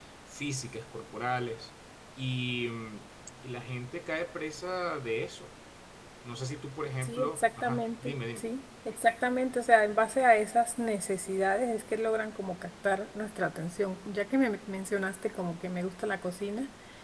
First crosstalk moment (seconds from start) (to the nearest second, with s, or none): 7 s